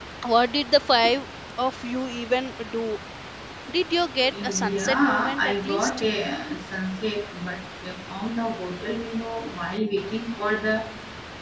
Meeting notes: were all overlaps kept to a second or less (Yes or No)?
No